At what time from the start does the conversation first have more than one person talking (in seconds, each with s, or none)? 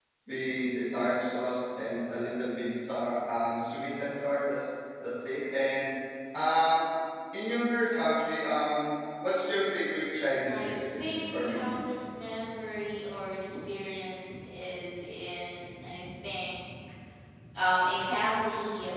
10.4 s